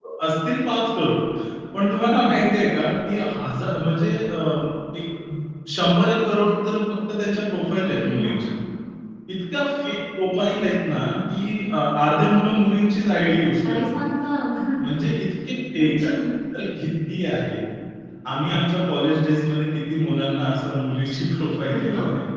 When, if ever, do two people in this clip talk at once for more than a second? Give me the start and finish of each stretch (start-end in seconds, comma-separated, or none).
none